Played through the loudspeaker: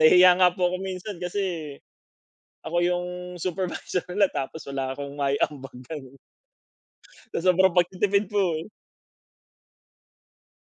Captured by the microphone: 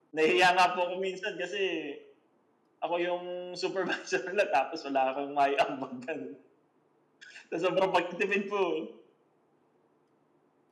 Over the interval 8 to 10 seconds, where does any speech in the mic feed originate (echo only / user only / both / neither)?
echo only